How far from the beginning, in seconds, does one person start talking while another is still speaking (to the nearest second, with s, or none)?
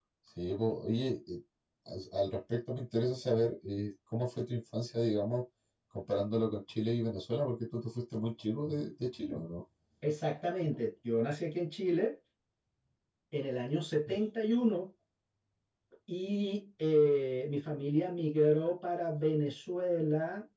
none